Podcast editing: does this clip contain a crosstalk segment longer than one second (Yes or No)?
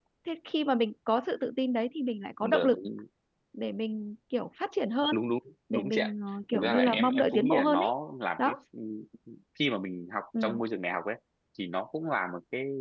Yes